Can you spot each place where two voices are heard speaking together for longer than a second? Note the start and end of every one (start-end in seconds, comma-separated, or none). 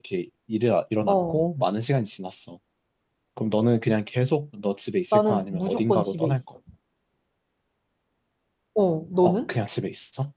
5.1-6.4